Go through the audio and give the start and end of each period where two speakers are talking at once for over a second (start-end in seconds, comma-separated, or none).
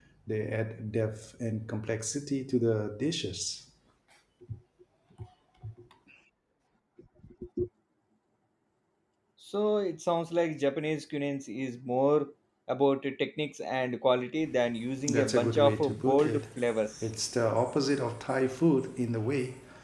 15.1-16.4